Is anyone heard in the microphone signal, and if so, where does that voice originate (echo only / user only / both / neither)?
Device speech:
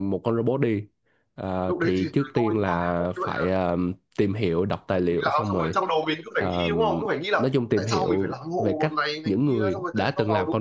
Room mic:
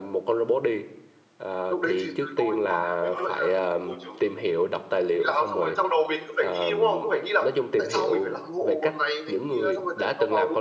both